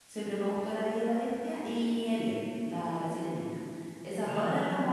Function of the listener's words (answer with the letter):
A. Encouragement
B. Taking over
A